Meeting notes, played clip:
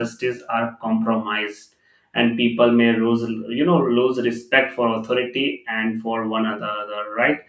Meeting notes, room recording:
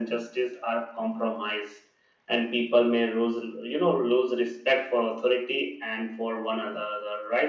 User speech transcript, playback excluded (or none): none